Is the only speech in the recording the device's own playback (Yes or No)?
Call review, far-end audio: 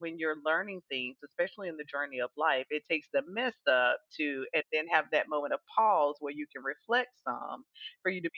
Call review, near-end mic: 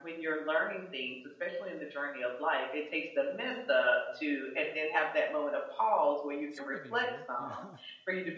No